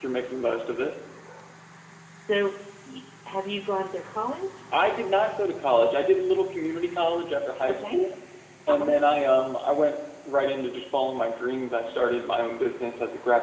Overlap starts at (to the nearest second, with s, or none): none